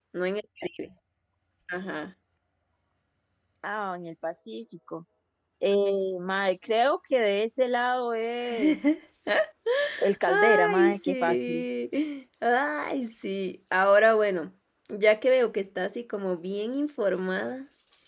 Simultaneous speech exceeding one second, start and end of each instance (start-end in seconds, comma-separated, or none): 10.3-11.6